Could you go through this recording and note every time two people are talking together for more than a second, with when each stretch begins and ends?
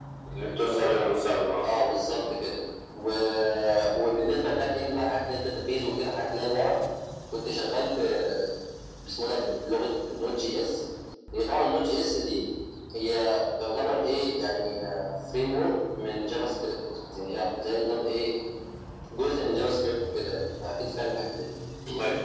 none

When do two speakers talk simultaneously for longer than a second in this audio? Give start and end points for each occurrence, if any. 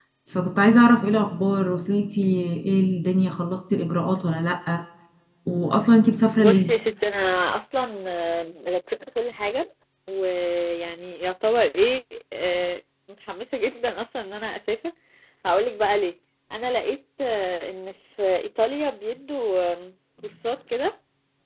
none

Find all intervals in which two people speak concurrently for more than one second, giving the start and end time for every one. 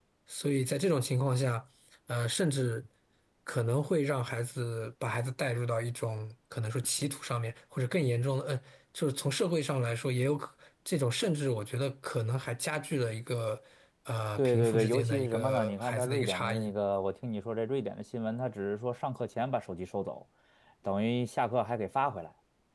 14.4-16.7

